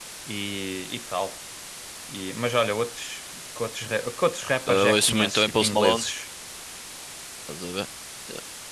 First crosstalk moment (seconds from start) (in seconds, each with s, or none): 4.7 s